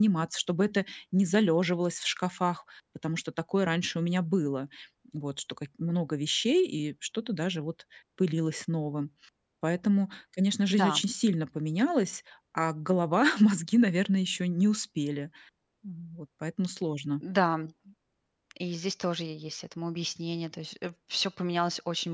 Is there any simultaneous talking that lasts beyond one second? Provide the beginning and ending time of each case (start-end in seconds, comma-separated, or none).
none